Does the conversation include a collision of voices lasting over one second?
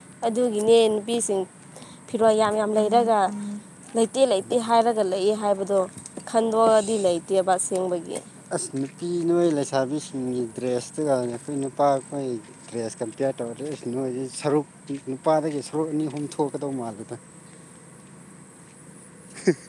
No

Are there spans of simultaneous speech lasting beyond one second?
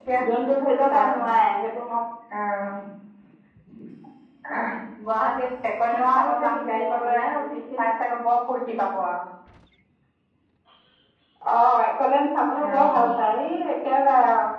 Yes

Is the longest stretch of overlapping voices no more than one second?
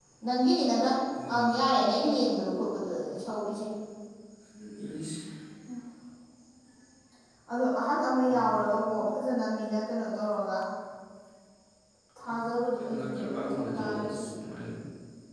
No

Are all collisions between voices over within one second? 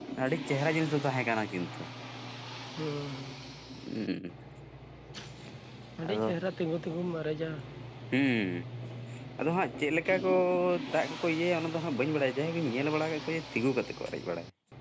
Yes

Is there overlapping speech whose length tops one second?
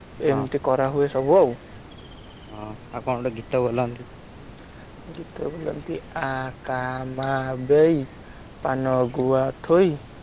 No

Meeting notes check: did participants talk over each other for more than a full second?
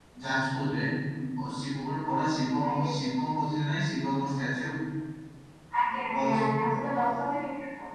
No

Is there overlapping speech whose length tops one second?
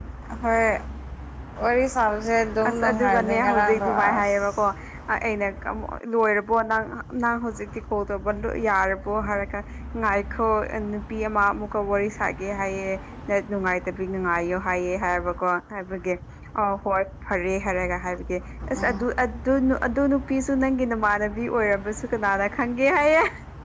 Yes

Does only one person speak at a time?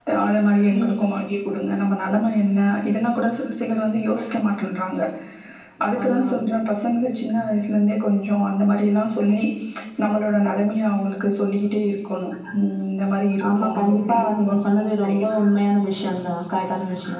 No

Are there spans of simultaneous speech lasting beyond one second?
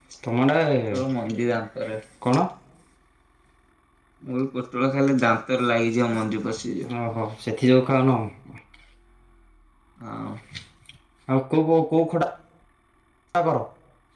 No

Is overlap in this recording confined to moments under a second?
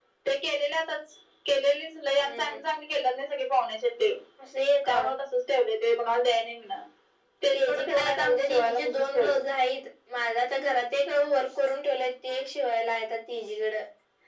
No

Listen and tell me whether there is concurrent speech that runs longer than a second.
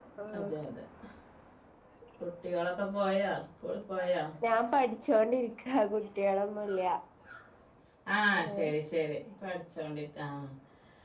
No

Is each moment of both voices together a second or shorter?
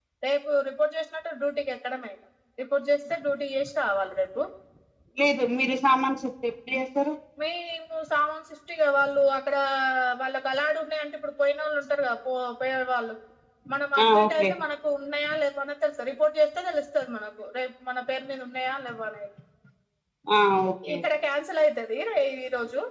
Yes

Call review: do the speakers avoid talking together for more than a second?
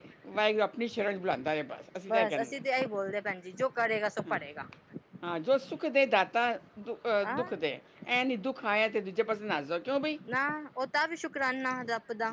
Yes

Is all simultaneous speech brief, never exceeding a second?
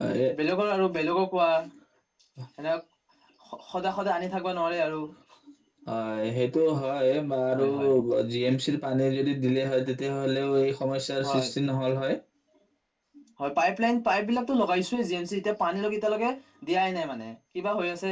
Yes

